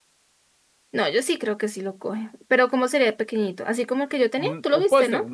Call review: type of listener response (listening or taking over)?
taking over